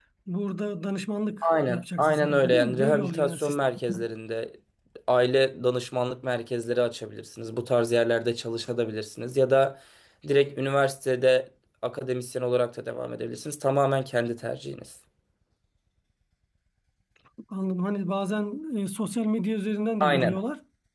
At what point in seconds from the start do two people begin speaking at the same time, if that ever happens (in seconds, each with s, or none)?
1.4 s